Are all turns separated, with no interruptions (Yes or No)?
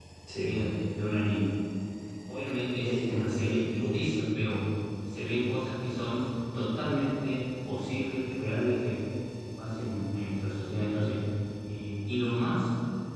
No